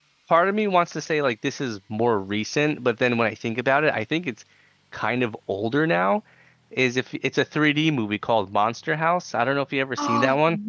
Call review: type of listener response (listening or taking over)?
taking over